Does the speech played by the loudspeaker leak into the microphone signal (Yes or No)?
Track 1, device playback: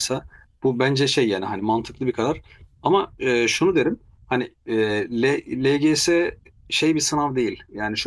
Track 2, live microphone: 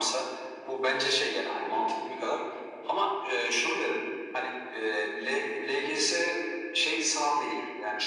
Yes